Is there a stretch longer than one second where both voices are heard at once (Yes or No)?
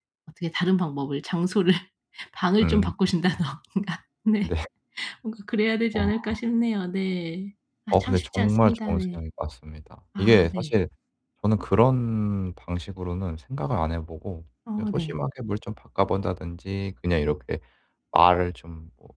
Yes